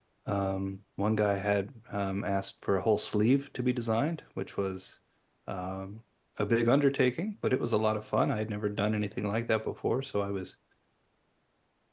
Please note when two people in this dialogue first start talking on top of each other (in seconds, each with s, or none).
none